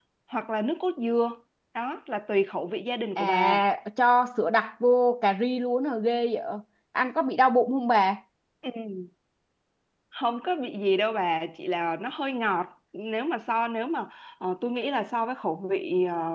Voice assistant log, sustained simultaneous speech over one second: none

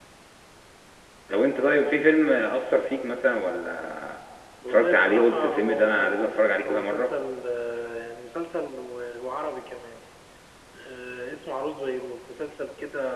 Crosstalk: present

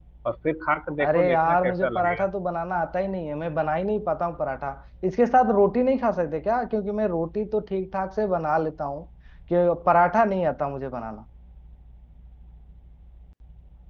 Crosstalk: present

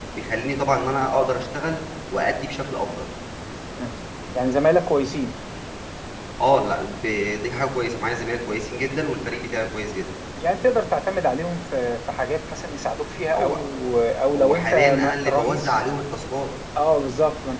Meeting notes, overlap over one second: present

